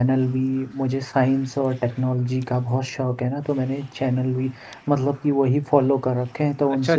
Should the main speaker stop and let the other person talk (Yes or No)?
Yes